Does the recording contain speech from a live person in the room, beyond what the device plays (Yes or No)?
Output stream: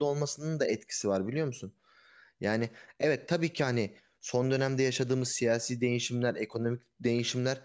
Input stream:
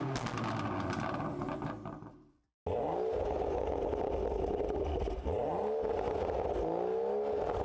No